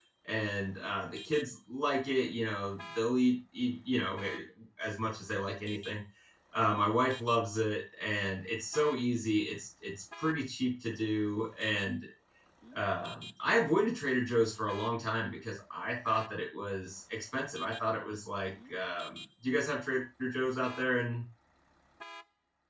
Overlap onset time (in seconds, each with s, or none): none